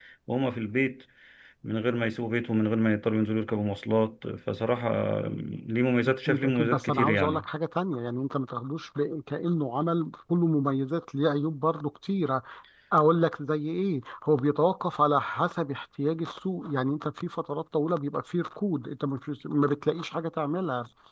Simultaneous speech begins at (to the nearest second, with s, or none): 6 s